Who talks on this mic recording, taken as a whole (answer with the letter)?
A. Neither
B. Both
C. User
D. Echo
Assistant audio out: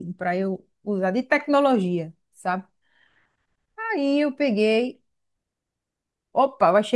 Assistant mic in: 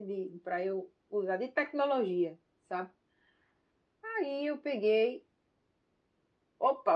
D